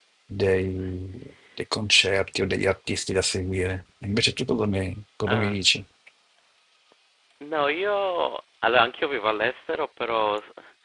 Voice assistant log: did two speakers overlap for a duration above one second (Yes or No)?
No